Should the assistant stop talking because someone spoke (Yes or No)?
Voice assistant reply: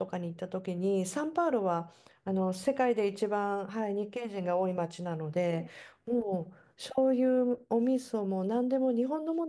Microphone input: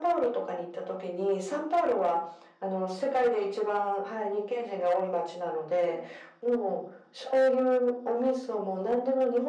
No